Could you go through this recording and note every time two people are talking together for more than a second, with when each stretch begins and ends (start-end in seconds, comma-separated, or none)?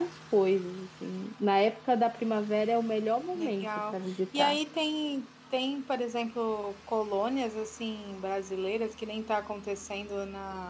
3.4-4.6